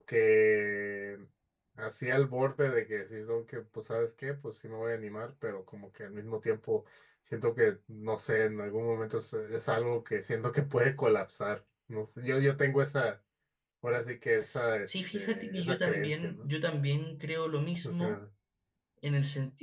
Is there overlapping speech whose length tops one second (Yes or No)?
Yes